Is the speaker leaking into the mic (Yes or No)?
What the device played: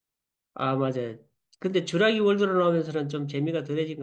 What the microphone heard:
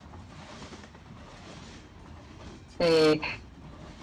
No